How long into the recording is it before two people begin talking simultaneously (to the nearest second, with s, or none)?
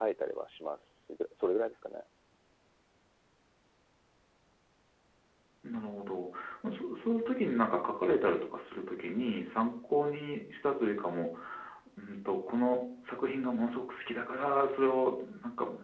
none